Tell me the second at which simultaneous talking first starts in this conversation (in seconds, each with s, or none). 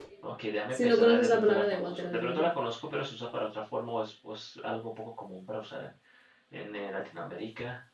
0.7 s